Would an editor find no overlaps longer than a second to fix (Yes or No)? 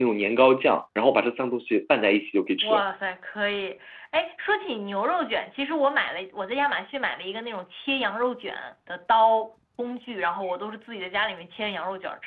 Yes